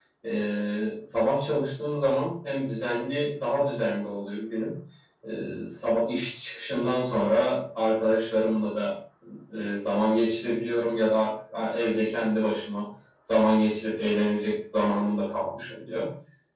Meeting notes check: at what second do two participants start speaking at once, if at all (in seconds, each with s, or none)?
none